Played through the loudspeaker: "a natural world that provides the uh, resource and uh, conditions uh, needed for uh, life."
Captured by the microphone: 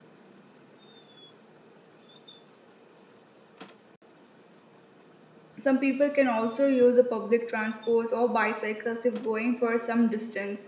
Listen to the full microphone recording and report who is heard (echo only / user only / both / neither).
user only